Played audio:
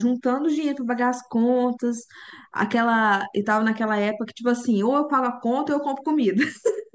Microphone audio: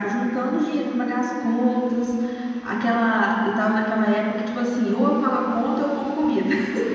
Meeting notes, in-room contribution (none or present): none